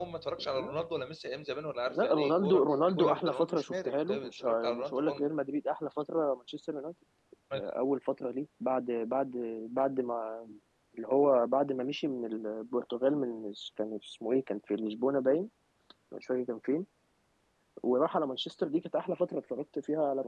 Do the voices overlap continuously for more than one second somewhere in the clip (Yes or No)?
Yes